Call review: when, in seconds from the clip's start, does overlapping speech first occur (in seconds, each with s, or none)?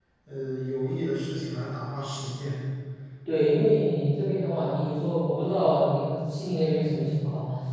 none